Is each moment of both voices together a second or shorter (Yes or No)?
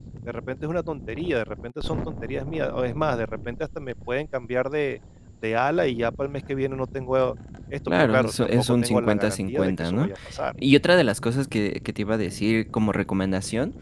No